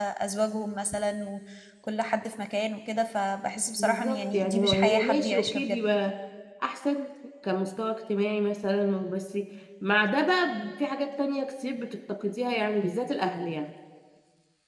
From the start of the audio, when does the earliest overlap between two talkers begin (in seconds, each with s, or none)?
3.8 s